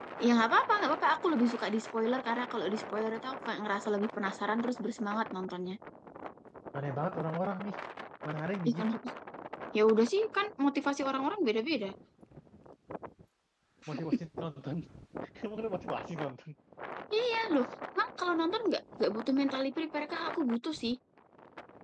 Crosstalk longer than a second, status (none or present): none